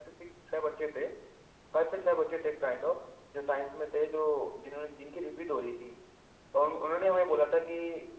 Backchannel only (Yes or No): Yes